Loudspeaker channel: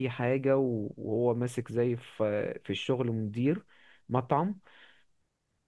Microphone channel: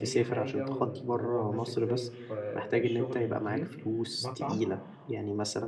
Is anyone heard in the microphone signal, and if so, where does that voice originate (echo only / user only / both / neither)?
both